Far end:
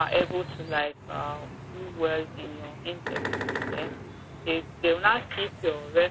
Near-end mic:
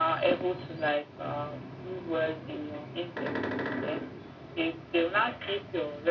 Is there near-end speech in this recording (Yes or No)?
No